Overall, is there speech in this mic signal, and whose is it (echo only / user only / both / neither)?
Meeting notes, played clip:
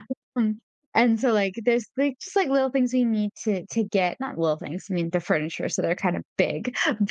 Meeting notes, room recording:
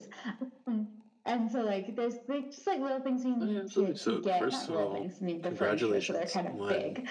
both